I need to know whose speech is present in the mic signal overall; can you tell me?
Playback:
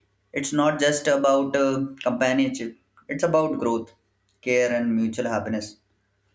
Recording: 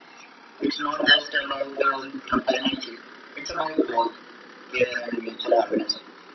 echo only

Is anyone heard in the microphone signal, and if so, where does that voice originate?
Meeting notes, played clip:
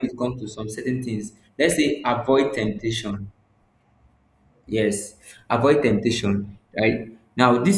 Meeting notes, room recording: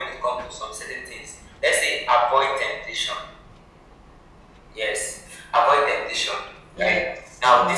both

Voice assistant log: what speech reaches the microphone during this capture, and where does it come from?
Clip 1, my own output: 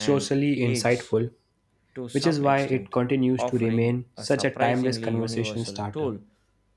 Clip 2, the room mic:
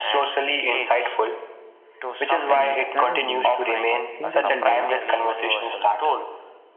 both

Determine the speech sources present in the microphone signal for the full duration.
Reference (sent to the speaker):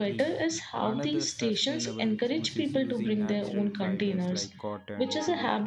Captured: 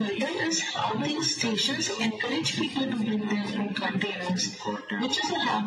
echo only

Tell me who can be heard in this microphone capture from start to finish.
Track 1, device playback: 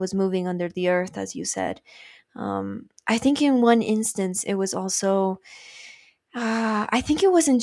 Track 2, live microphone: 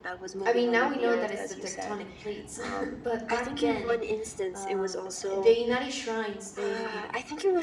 both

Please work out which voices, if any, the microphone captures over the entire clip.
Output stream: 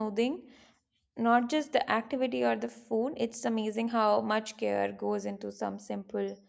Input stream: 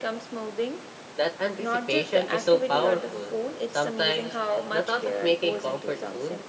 both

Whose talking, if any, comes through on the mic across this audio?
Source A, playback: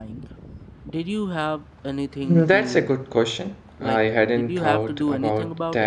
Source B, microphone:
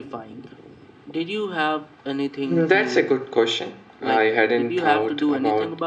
echo only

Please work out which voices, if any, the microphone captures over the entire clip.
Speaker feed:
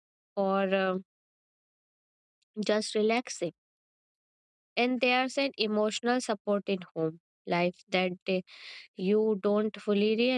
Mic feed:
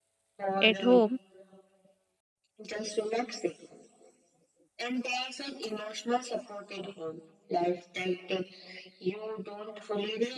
both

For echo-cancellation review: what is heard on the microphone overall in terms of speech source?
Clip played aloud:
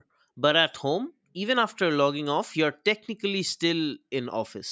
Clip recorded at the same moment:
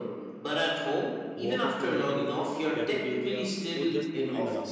both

